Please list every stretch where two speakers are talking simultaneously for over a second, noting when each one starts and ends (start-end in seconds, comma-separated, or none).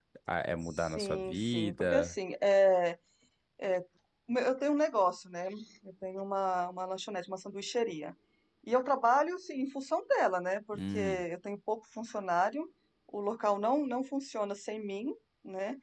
0.8-2.1